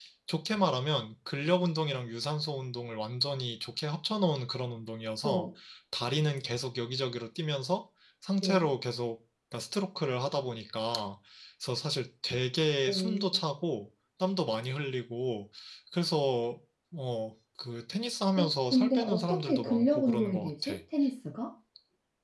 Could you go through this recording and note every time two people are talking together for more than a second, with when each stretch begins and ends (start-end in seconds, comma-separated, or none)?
18.4-20.8